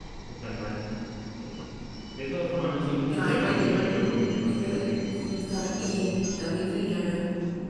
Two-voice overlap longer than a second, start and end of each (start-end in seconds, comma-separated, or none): 3.1-4.9